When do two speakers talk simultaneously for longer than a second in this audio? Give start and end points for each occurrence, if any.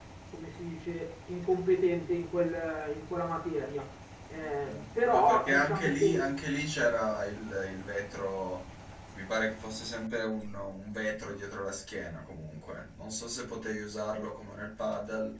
4.4-6.2

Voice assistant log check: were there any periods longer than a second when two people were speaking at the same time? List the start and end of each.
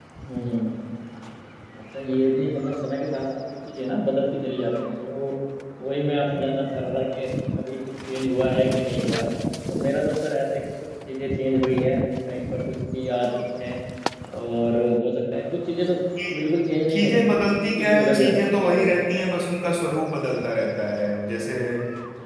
16.9-19.2

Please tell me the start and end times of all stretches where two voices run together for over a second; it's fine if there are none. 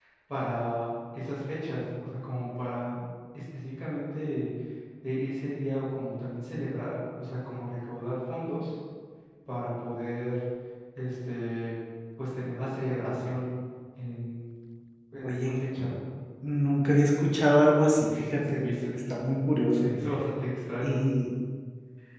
none

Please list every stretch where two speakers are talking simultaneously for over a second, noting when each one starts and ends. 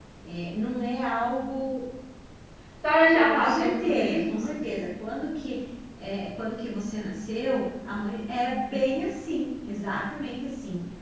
3.1-4.5

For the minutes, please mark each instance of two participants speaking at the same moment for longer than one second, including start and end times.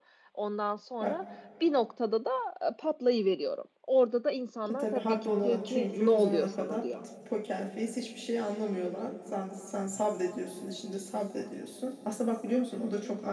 4.7-6.9

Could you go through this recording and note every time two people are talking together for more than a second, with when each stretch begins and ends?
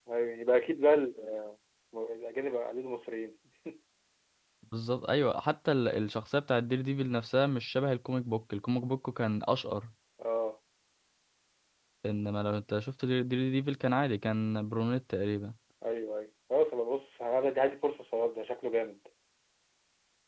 none

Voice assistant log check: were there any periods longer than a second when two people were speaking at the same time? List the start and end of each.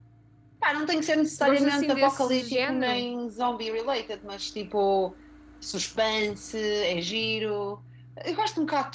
1.4-3.1

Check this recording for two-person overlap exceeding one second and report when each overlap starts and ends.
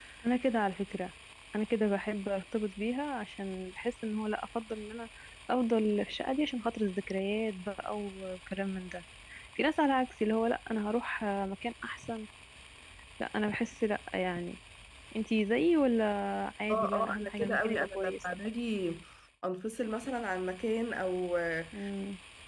16.7-18.2

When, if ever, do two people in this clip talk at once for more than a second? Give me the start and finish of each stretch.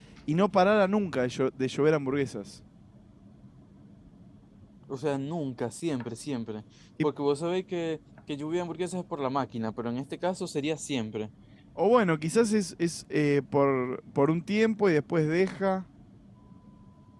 none

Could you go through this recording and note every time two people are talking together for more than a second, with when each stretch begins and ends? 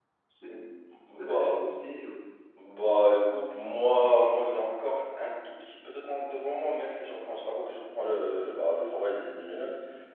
none

